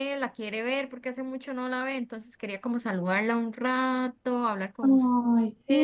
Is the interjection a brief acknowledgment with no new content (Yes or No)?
No